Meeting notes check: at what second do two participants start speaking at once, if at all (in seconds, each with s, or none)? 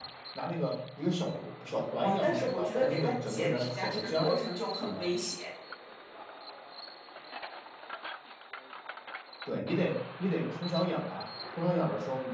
2.0 s